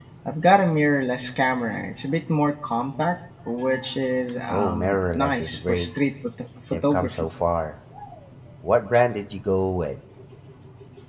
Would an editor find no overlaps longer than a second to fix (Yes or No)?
No